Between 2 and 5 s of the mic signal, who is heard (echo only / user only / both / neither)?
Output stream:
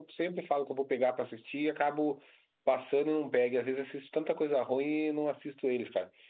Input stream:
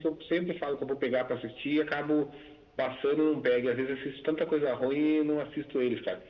echo only